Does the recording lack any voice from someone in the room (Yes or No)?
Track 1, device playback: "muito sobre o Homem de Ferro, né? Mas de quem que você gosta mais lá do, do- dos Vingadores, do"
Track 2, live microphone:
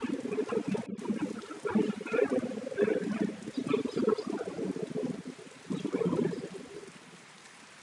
Yes